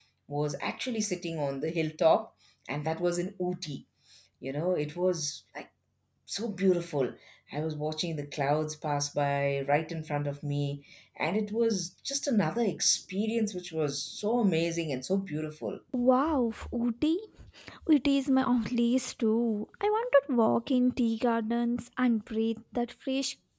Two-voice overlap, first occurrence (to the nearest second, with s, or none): none